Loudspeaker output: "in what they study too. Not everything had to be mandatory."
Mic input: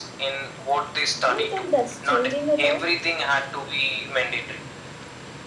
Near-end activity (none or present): present